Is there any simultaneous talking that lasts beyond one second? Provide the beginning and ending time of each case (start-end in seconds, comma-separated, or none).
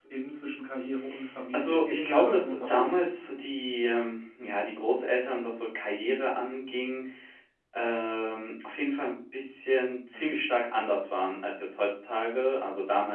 1.5-3.1